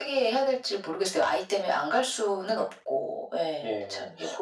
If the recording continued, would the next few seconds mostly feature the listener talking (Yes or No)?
Yes